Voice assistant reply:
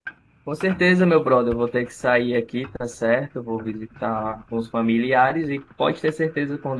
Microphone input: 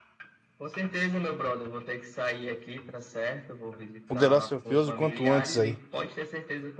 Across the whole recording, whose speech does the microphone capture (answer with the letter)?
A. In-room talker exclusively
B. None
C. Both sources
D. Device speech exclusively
C